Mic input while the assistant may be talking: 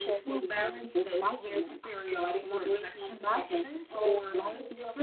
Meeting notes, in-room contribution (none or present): present